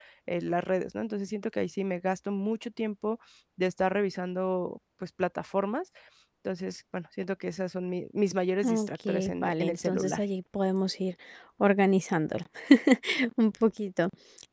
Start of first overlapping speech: 8.6 s

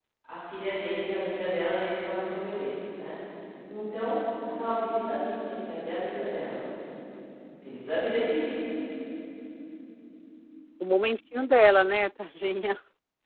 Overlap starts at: none

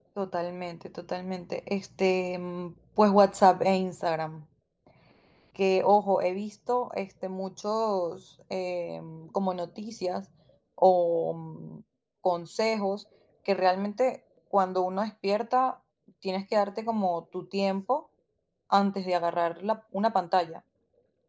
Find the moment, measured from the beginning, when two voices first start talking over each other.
none

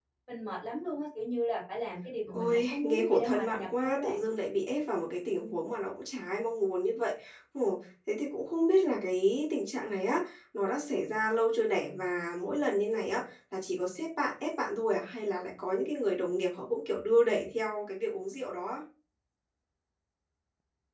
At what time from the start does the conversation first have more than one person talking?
2.3 s

